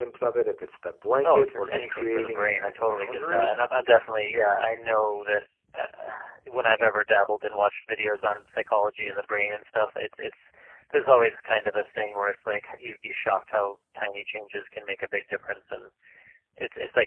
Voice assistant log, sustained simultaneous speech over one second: present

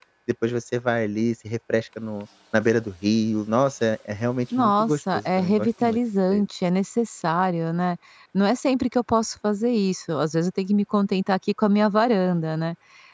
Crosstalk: present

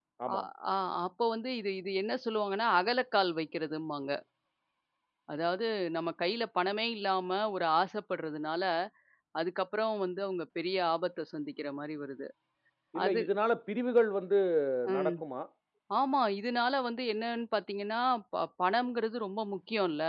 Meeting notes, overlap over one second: none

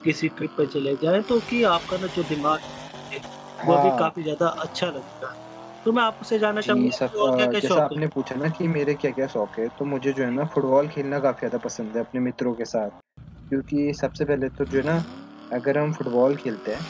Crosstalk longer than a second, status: present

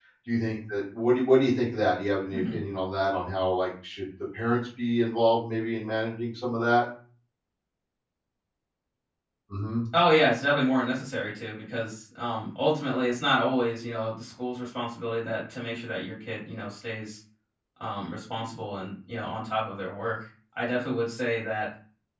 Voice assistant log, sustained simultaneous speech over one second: none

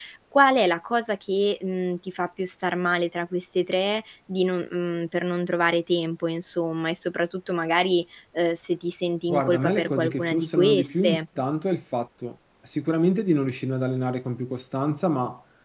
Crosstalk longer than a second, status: present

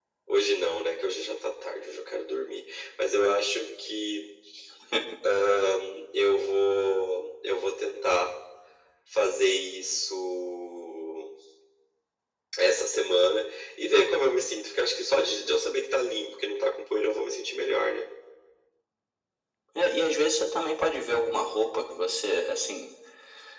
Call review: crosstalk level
none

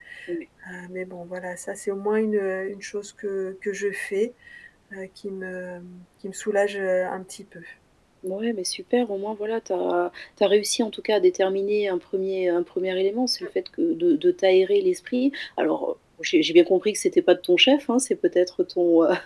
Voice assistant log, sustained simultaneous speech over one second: none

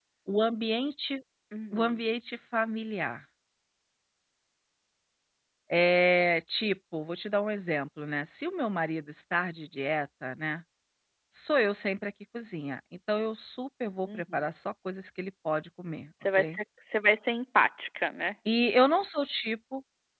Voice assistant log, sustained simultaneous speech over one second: none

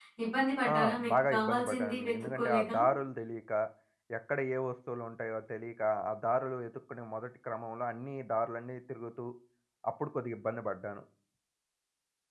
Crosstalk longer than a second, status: present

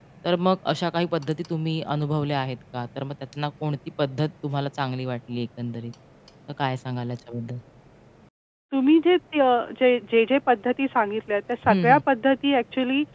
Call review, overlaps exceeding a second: none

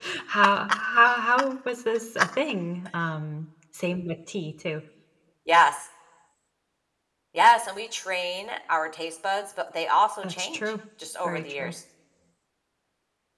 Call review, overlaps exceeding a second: none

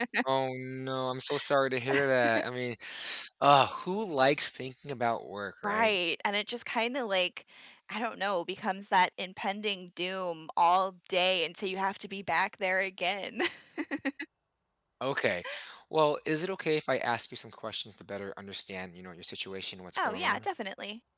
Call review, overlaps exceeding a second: none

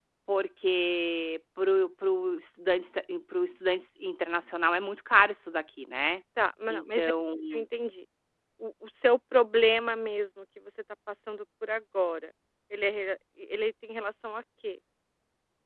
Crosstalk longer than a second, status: none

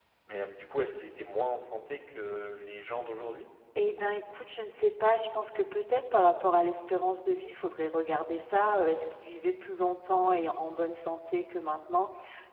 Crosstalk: none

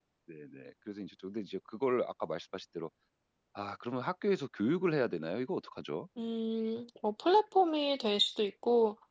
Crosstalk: none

